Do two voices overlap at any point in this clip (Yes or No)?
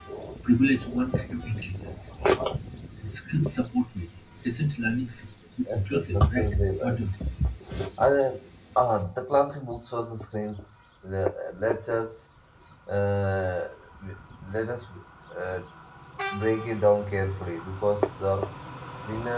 Yes